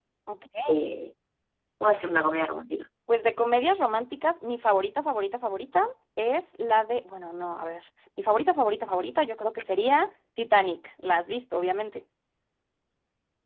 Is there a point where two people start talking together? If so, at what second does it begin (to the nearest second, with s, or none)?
none